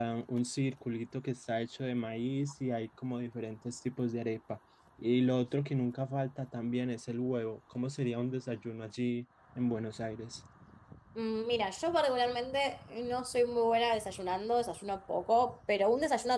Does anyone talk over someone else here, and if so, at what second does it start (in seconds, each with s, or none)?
none